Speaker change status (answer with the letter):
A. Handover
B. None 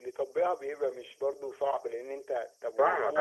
A